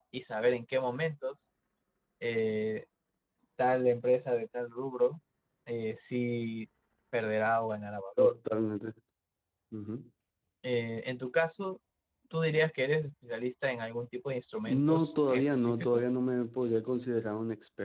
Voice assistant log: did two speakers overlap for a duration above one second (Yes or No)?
Yes